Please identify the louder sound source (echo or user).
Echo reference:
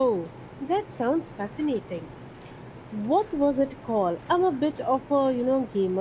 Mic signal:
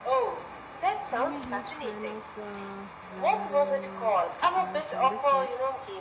echo